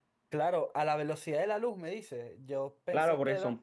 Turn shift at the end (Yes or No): Yes